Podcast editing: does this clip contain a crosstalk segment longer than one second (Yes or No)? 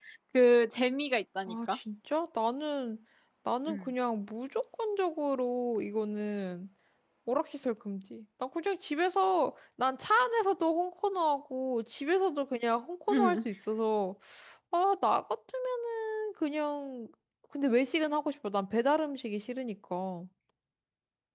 No